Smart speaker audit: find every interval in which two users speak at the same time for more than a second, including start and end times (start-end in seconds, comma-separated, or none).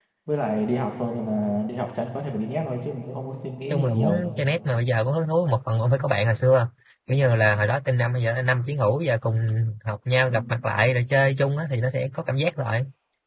none